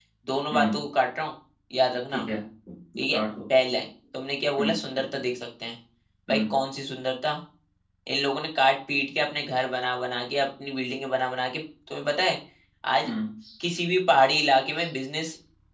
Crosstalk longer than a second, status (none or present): none